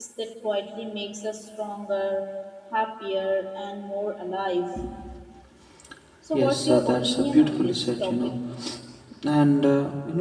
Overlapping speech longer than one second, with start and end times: 6.3-8.3

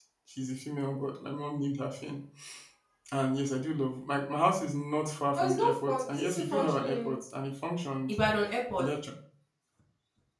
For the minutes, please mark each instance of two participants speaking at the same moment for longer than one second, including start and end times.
5.3-7.1

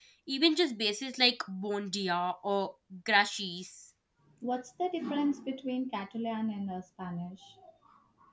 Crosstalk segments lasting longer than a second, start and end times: none

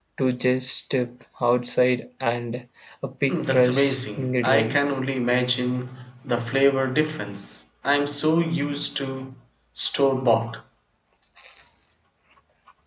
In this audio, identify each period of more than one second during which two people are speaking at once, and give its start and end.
3.3-5.0

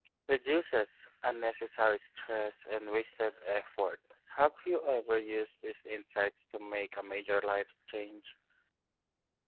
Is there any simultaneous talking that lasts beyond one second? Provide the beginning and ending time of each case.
none

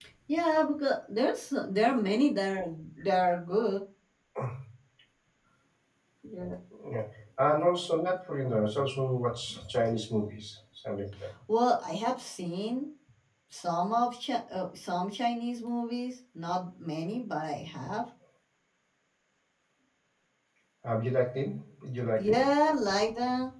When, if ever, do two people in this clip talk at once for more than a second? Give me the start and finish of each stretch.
none

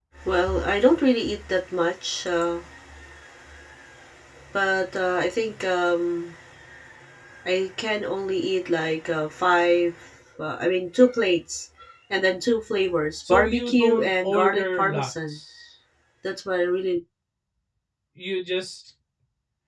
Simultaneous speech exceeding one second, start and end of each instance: 13.3-15.4

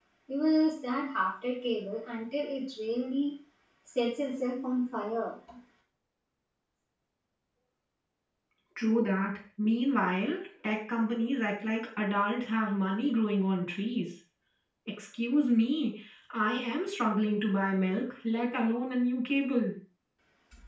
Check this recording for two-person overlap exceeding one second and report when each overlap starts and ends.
none

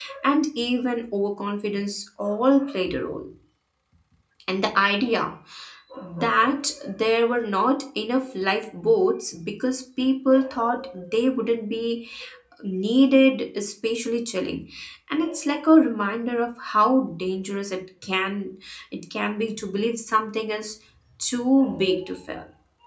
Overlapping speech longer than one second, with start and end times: none

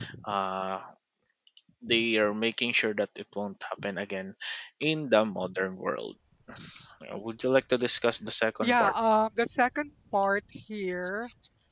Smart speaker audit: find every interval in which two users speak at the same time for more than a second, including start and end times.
none

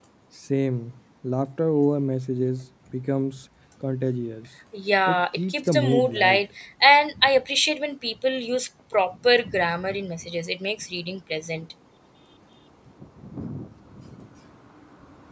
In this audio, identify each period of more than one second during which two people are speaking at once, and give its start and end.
5.1-6.4

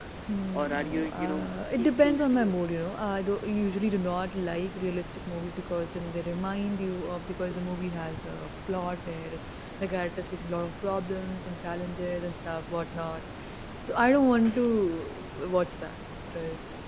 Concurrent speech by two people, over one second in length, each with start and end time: 0.5-2.5

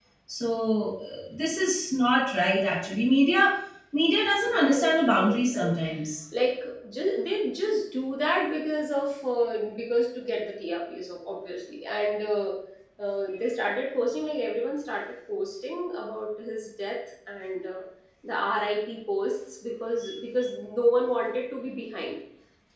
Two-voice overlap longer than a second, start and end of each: 4.4-5.8

